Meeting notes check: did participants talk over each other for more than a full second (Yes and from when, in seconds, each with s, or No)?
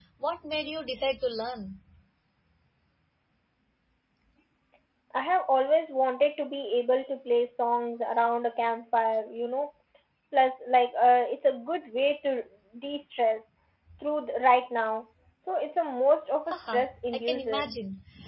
Yes, from 16.5 s